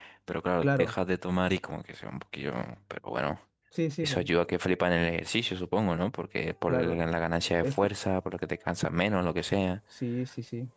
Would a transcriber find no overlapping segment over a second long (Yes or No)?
Yes